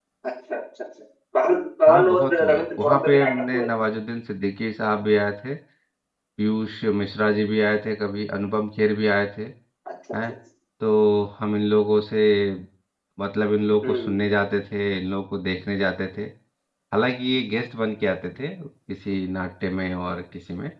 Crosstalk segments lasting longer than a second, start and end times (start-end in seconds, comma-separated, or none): 1.9-3.7